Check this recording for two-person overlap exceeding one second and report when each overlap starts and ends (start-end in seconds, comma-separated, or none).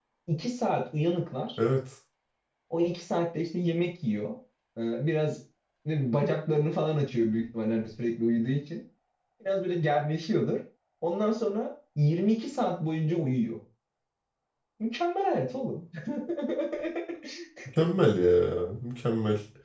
none